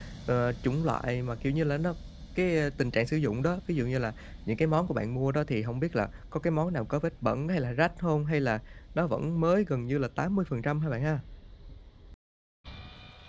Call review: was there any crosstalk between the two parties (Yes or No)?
No